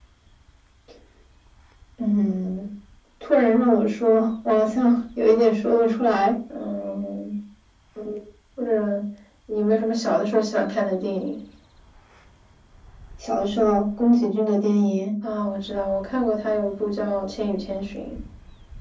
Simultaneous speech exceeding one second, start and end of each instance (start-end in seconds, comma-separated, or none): none